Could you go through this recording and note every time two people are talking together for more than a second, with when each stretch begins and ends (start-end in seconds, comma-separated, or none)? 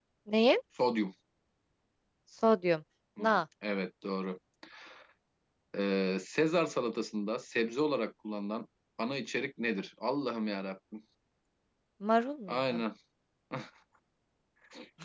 none